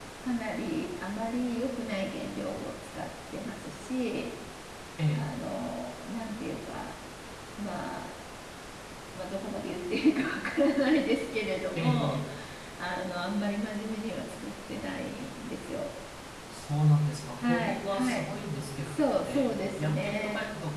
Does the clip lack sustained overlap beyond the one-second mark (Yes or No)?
No